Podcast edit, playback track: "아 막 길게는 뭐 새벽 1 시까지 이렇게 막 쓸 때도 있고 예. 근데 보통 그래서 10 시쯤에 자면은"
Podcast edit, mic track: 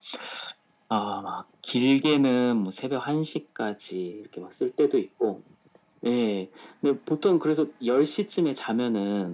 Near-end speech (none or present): none